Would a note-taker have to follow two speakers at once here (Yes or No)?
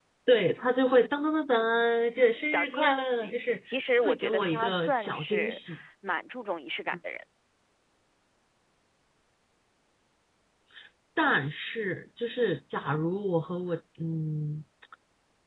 Yes